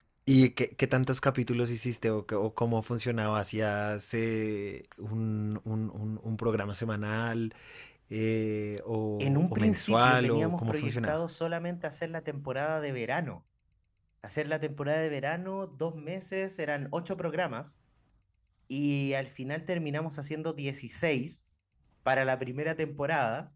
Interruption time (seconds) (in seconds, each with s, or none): 9.2 s